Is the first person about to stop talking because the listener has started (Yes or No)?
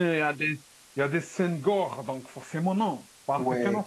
Yes